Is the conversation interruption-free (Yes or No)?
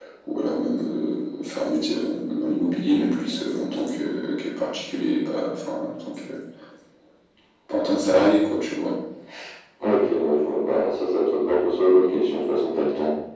Yes